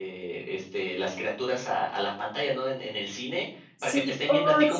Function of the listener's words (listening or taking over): listening